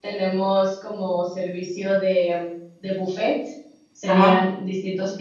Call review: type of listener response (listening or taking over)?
listening